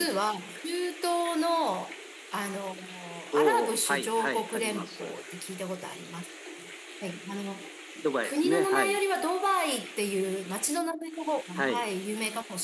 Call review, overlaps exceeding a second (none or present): present